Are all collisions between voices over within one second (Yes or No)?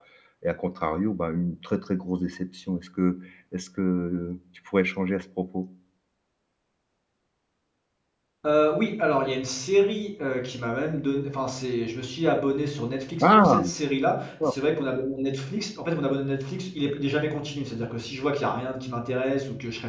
Yes